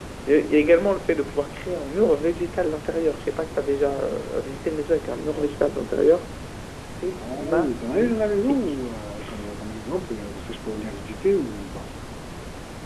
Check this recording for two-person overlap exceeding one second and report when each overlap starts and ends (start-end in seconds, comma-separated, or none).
7.2-8.7